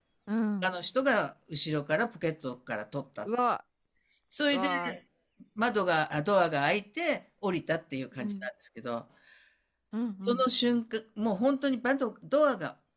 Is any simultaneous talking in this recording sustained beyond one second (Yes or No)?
No